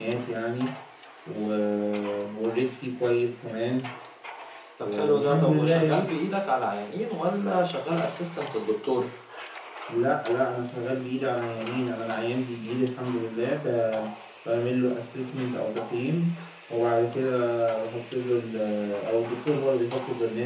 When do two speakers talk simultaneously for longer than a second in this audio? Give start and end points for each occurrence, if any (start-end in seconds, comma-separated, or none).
4.8-6.1